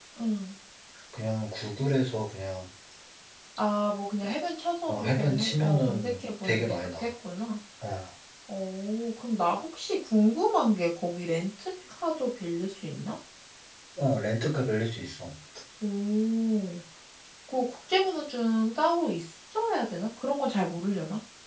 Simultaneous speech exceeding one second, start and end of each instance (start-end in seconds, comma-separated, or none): 4.9-7.1